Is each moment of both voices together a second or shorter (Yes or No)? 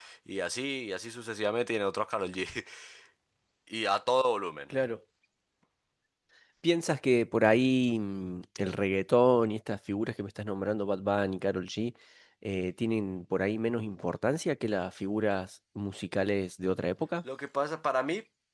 Yes